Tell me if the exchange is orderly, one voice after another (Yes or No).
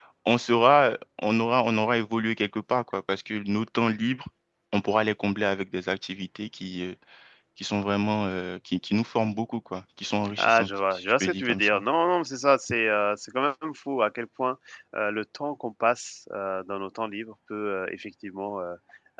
No